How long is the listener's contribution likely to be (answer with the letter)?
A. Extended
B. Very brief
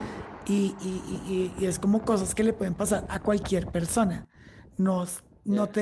B